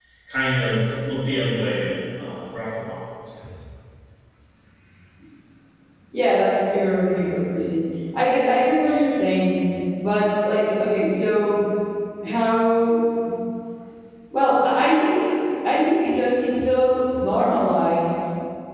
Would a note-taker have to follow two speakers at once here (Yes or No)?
No